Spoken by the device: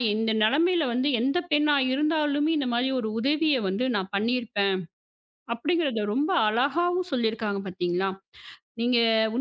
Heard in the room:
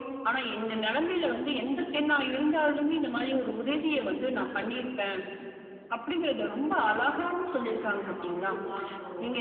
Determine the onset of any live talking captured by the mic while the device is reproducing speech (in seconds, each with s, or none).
7.5 s